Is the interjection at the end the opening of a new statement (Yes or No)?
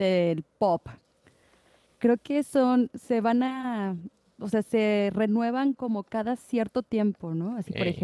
No